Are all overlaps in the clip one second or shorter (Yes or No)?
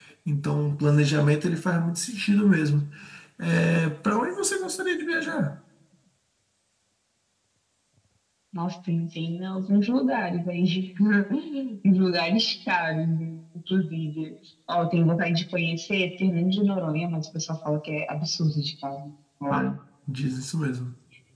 Yes